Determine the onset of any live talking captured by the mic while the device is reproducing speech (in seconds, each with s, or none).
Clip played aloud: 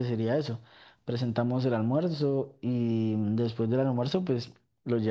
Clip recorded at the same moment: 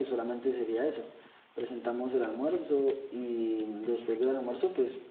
none